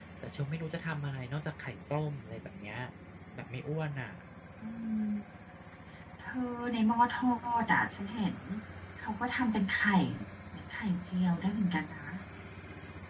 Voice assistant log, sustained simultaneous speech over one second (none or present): none